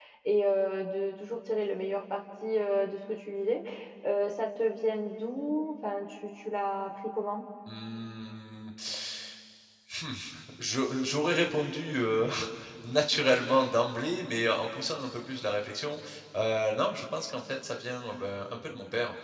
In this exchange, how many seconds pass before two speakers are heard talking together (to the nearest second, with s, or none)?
none